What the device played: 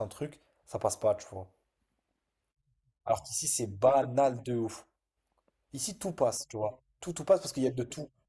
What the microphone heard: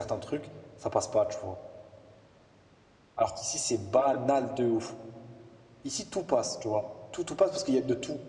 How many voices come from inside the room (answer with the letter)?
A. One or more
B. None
B